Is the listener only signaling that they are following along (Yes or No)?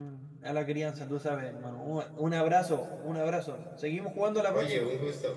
No